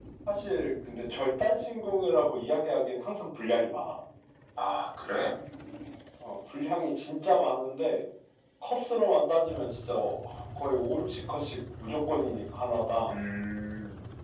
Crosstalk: none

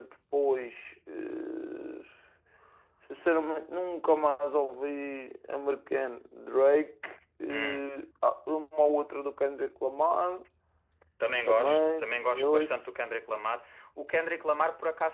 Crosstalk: present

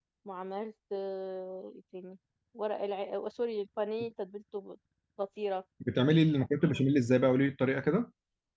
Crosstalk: none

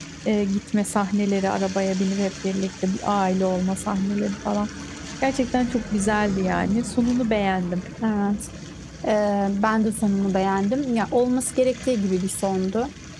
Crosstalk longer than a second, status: none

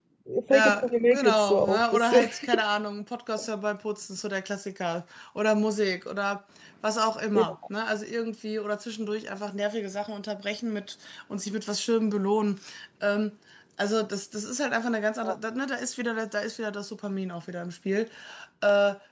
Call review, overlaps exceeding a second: present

